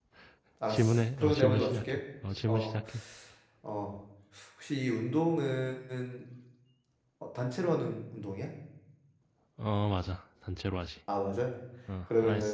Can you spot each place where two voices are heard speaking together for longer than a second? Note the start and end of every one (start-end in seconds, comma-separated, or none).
0.7-2.0